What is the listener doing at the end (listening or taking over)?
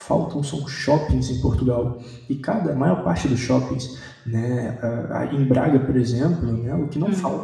listening